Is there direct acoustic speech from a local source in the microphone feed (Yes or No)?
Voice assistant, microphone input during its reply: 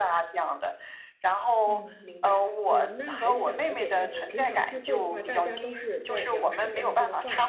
Yes